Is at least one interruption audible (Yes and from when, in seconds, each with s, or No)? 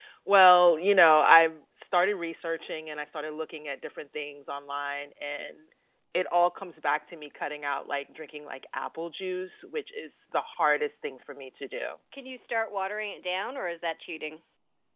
No